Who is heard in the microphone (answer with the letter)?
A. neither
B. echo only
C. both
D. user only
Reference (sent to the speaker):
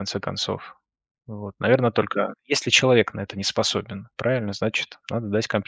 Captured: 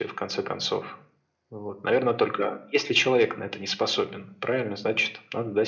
B